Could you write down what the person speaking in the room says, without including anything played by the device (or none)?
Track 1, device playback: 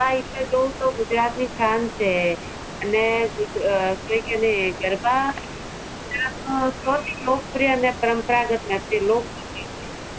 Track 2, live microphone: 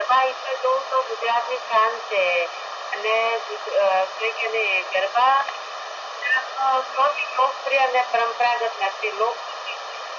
none